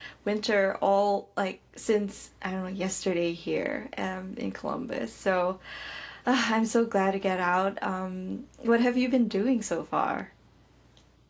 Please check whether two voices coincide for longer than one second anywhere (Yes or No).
No